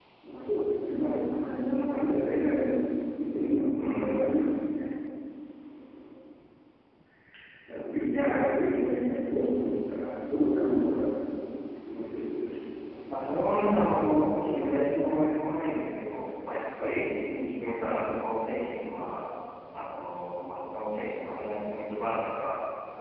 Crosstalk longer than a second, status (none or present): none